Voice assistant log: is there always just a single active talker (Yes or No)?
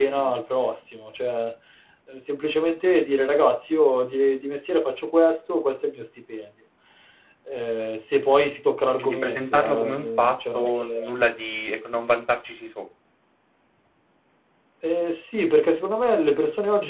No